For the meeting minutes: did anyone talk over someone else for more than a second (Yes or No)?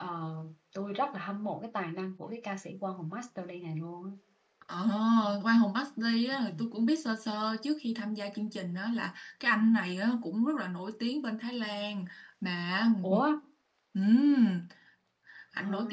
No